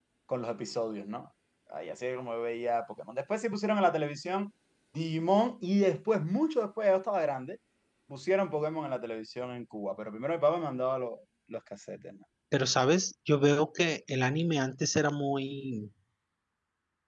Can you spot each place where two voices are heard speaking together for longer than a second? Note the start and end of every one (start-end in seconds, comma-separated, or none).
none